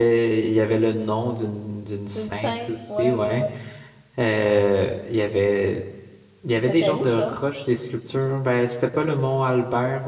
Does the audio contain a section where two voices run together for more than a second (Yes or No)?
Yes